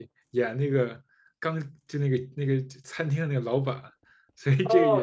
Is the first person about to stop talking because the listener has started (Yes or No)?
Yes